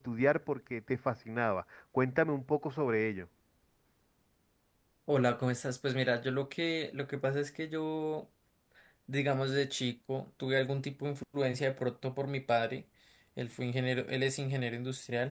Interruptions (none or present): none